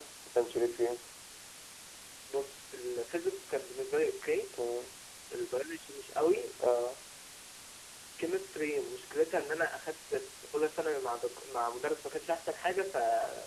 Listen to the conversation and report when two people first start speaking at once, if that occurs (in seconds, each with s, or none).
none